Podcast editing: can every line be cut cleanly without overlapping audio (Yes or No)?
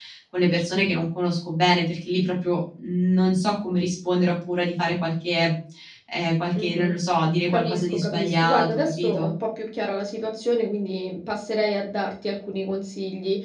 No